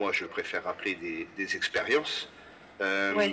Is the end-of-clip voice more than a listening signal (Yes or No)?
No